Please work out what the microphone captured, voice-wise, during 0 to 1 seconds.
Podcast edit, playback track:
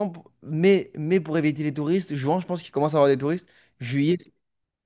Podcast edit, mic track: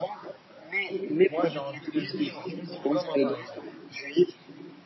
echo only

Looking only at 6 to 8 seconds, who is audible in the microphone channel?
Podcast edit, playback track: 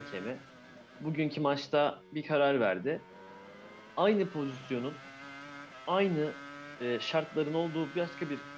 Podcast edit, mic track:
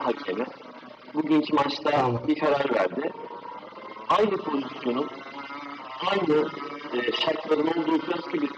echo only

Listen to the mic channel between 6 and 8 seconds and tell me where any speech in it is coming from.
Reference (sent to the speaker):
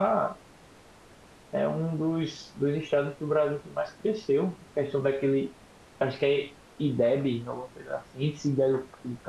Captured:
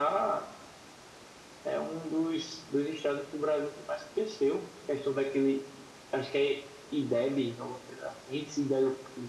echo only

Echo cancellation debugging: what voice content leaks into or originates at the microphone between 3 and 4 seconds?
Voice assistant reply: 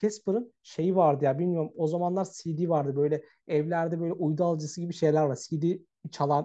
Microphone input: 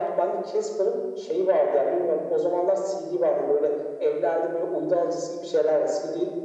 echo only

